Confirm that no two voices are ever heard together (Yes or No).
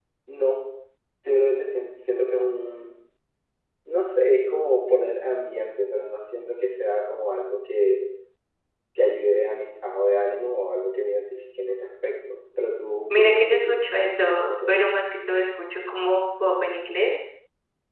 No